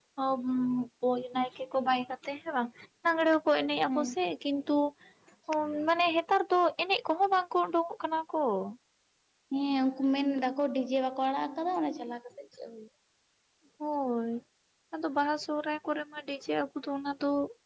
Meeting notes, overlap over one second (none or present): none